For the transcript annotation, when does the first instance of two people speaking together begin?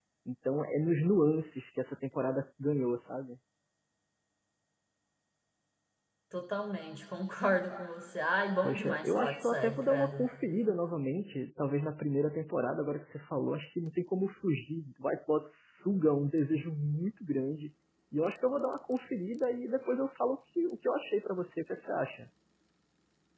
8.6 s

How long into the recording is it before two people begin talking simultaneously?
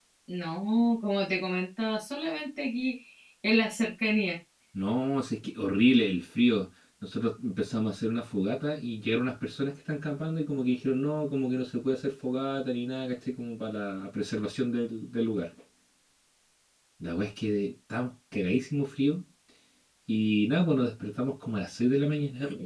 none

